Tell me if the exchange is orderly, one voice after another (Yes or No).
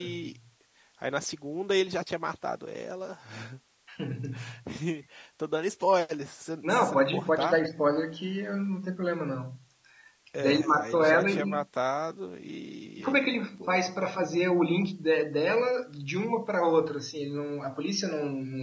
No